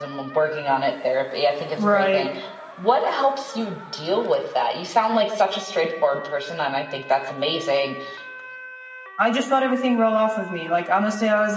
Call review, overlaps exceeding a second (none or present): none